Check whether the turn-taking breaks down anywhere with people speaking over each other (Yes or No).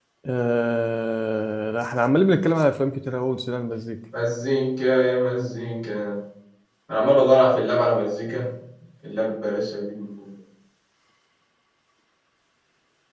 No